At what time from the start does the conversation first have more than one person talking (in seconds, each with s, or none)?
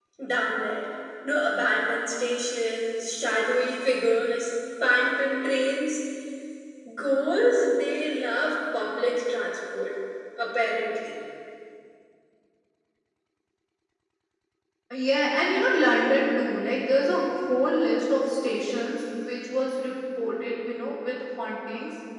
none